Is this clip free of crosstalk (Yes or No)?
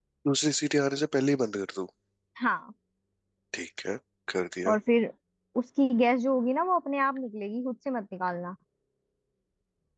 Yes